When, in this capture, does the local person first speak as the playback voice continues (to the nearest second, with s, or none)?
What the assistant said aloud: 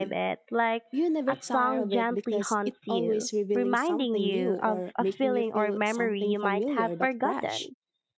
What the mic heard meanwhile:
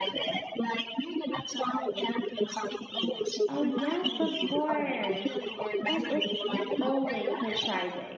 3 s